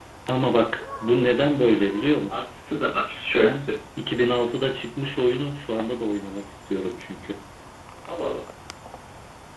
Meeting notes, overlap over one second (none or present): none